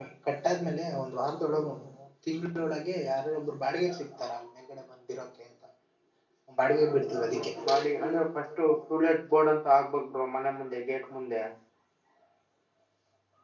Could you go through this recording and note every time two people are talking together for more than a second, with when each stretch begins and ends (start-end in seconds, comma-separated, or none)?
none